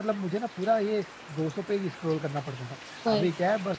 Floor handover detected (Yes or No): No